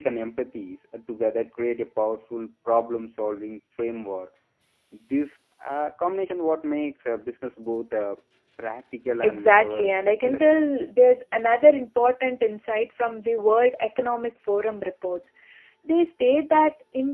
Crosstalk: present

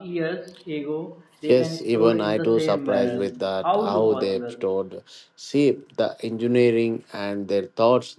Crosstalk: present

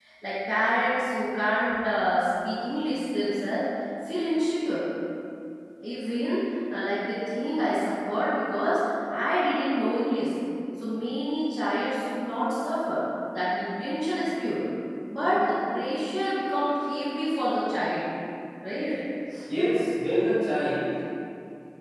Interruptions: none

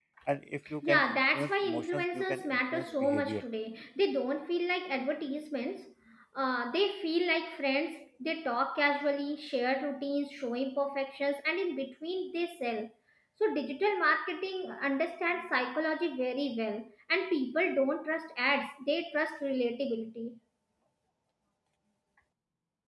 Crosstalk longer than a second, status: present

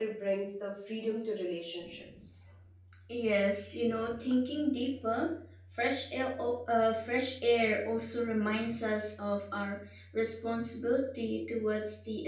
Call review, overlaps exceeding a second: none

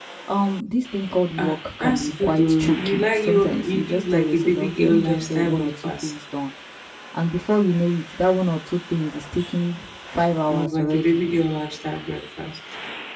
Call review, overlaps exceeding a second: present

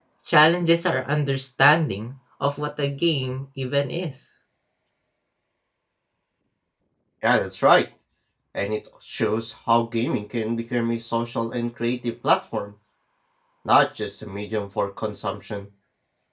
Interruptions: none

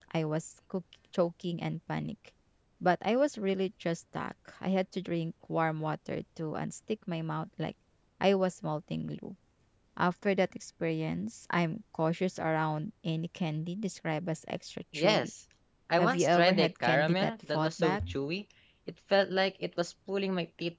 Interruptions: present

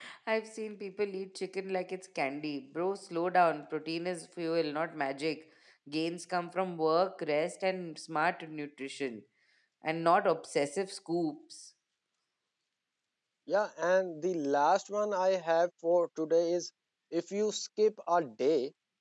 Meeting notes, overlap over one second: none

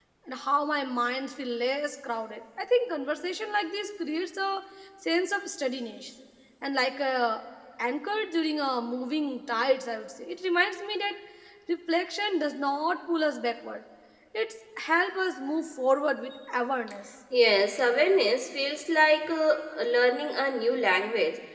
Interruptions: none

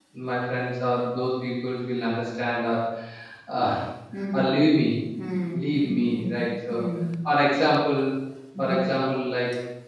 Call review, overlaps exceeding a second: present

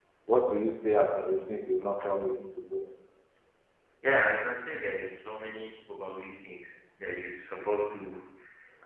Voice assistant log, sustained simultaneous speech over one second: none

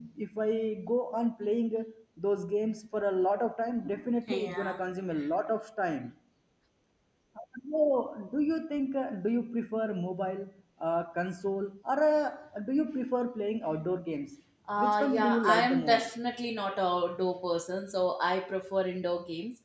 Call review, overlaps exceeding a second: present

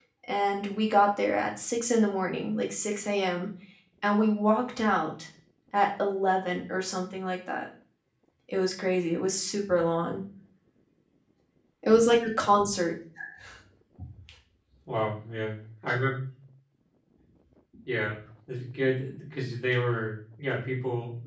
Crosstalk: none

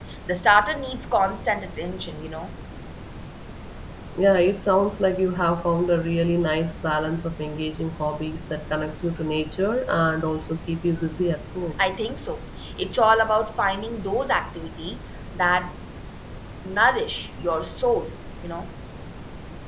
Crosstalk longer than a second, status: none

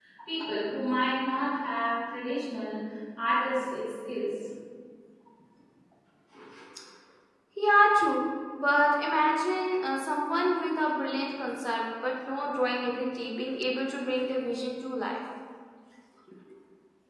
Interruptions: none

